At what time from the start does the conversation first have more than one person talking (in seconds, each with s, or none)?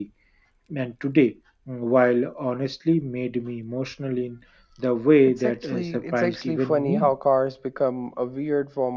5.2 s